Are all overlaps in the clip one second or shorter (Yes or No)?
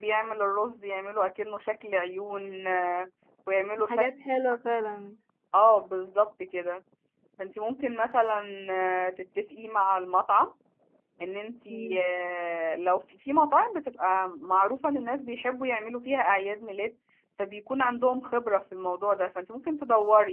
Yes